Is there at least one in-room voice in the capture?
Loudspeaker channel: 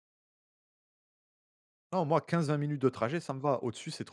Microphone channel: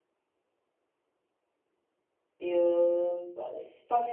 Yes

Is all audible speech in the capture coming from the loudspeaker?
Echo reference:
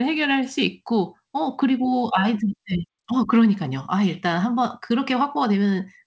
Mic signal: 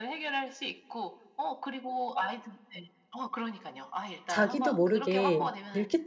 No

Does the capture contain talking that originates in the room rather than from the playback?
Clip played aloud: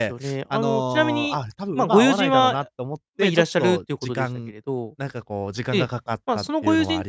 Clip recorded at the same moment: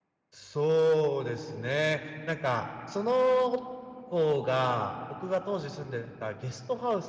Yes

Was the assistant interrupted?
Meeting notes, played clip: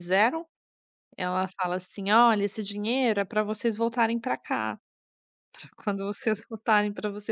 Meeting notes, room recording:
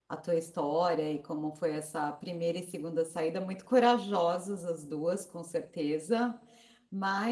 Yes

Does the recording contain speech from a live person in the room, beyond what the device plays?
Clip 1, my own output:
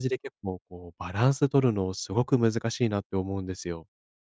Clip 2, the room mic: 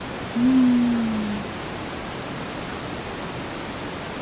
Yes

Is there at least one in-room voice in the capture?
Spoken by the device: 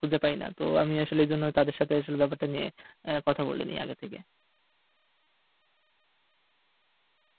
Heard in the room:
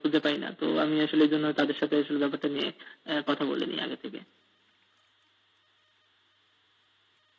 No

